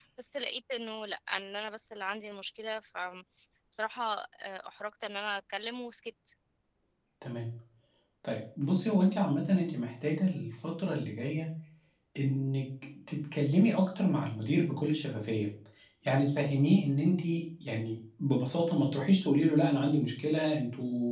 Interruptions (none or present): none